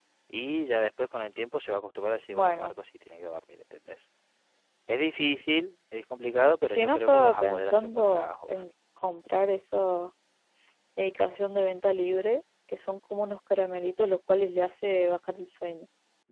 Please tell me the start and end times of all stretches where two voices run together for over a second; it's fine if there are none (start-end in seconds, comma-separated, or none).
6.6-8.7